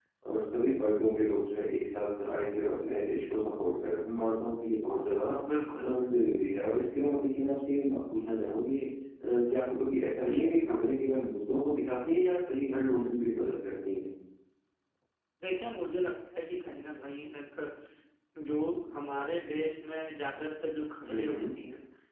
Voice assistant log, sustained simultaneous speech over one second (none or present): none